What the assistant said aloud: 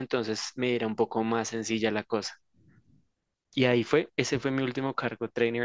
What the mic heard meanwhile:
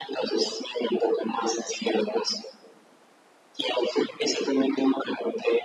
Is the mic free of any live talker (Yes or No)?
Yes